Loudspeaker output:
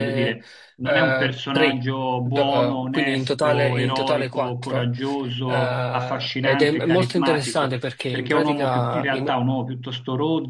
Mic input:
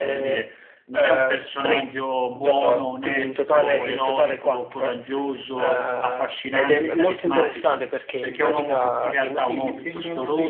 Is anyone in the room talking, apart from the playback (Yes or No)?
Yes